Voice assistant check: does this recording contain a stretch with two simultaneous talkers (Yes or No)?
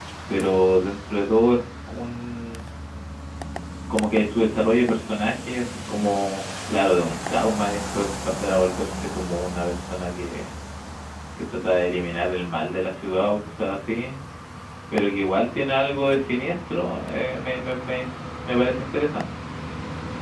No